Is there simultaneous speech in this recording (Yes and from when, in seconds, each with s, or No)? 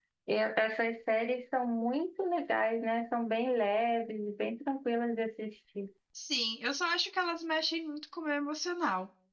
No